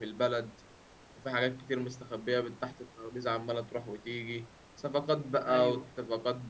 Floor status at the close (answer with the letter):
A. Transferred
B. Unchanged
B